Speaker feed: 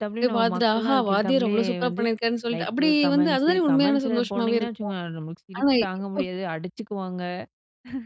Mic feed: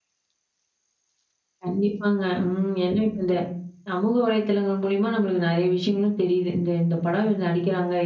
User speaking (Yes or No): Yes